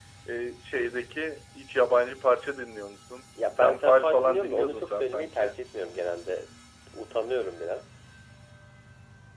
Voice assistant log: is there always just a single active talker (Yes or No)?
No